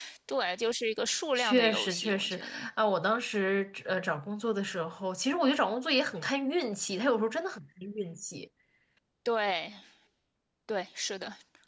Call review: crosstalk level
present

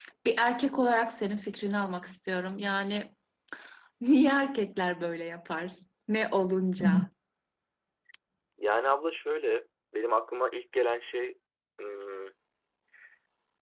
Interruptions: none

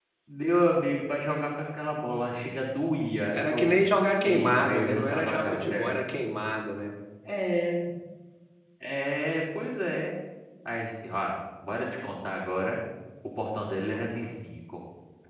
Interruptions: present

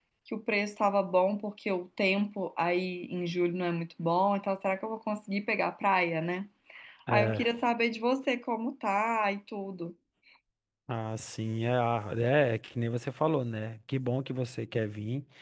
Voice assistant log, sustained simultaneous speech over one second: none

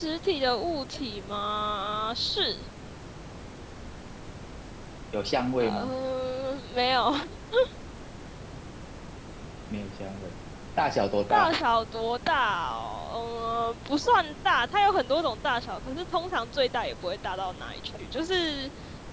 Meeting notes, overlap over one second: none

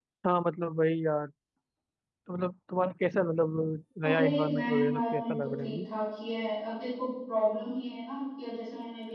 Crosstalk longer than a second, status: present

